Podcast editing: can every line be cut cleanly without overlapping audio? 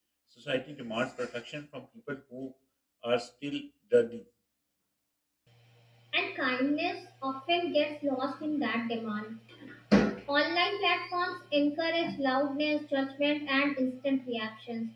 Yes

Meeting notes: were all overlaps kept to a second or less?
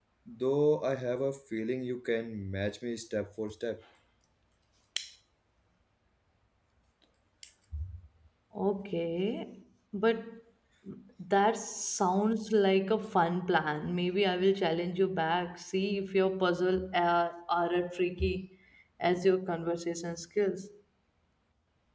Yes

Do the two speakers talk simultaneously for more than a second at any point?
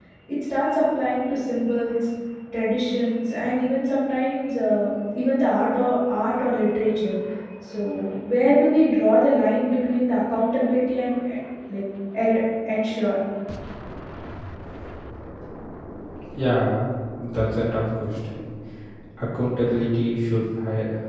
No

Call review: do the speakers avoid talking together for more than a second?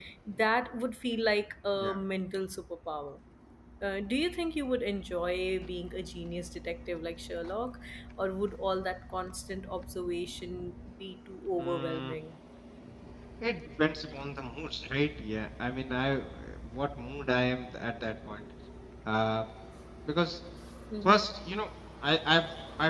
Yes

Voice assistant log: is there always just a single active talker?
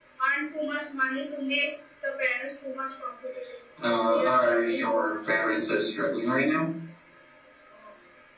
No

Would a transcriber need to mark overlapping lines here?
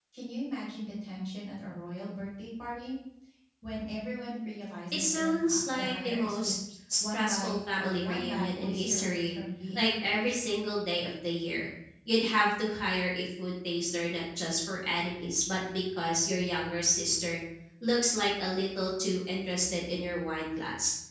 Yes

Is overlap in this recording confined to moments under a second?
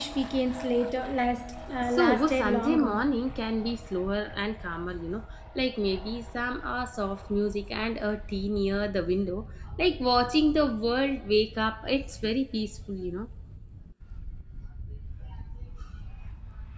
No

